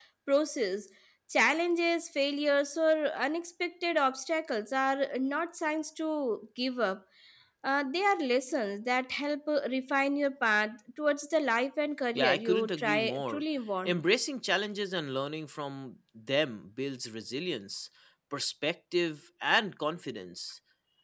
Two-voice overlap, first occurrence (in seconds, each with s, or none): 12.1 s